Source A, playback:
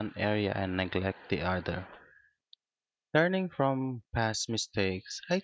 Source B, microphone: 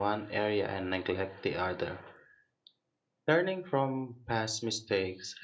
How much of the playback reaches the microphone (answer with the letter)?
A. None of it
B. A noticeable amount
B